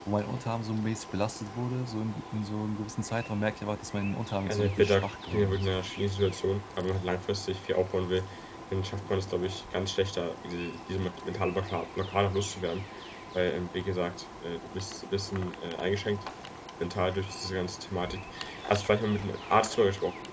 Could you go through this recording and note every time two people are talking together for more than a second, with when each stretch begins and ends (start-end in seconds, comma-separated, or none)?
4.5-5.7